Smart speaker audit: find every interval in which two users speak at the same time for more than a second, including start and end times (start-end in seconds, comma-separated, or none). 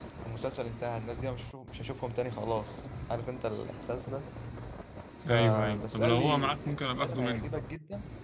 5.3-6.5